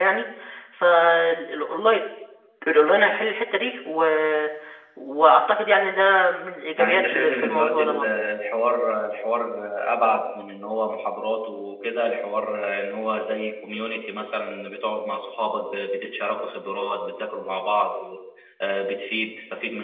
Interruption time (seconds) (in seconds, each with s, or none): 6.8 s